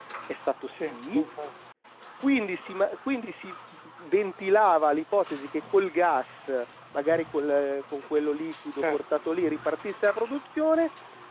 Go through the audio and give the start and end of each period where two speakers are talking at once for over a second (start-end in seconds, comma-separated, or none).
none